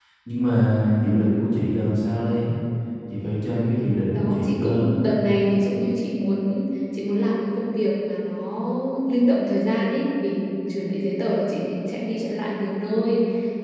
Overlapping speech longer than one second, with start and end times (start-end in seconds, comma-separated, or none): 3.8-5.0